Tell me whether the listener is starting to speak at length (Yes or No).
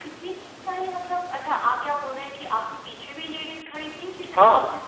Yes